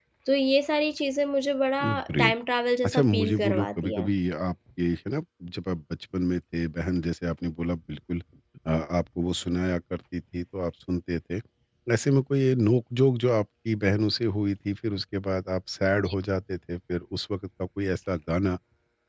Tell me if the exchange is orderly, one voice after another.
No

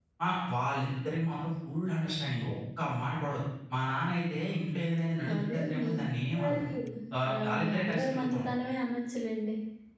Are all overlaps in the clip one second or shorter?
No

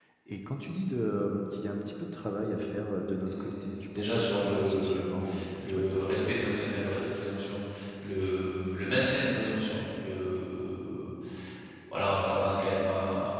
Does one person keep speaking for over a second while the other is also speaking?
Yes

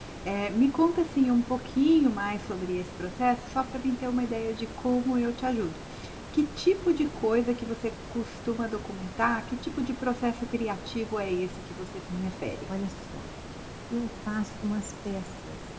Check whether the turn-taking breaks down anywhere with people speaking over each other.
No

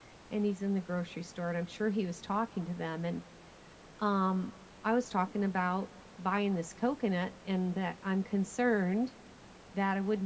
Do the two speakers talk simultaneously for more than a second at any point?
No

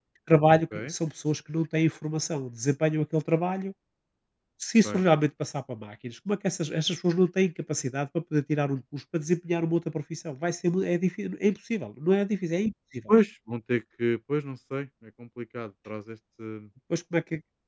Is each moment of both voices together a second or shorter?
Yes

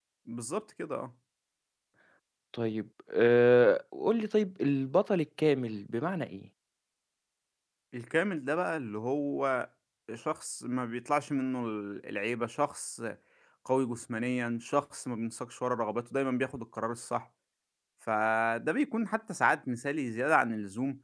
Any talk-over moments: No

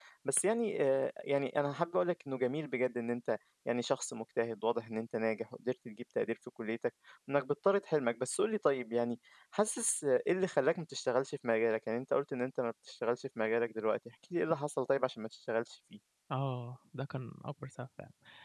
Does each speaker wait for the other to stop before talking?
Yes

